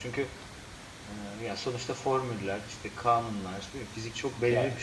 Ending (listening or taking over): taking over